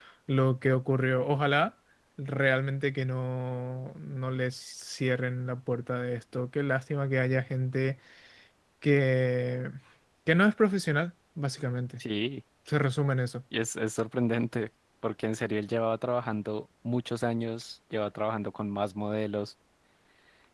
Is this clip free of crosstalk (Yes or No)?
Yes